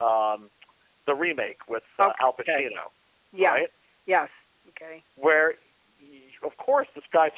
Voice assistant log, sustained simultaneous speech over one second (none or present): none